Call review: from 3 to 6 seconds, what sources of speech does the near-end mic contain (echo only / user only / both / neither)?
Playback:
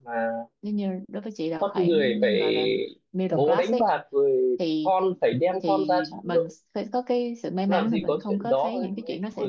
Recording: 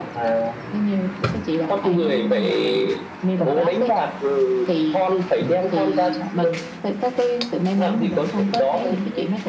echo only